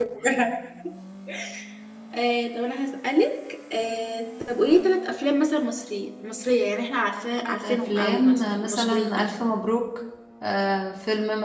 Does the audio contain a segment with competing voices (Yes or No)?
Yes